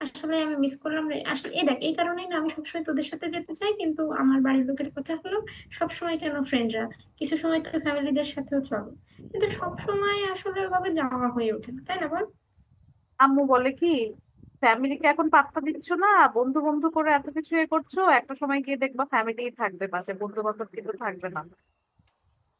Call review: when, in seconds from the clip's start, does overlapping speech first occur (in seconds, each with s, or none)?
none